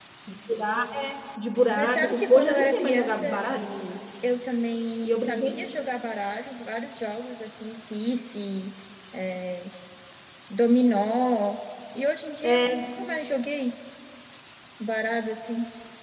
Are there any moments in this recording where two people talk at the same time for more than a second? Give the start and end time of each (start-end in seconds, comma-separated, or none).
1.8-3.4